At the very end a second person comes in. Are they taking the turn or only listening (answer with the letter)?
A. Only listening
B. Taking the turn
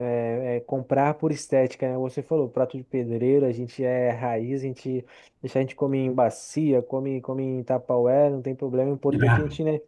A